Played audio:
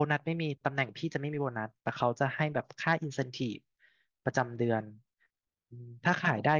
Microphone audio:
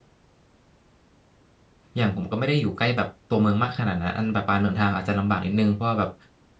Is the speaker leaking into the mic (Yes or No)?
No